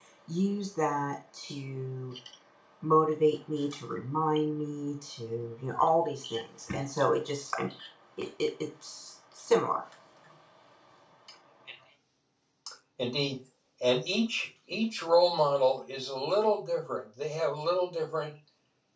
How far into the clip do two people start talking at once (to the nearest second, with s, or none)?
none